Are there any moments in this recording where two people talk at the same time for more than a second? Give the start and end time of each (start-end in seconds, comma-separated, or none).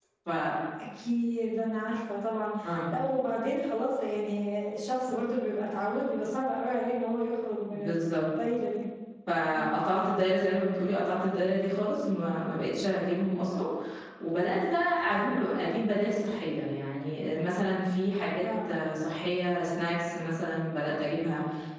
none